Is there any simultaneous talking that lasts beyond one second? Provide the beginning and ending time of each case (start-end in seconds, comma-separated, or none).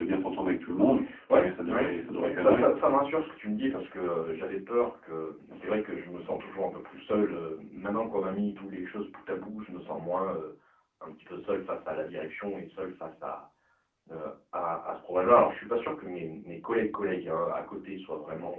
1.4-2.7